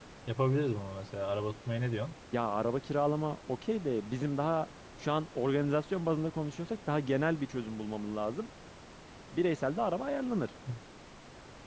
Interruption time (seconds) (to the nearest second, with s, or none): none